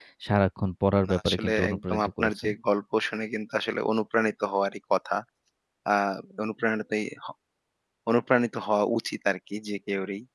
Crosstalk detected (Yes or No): Yes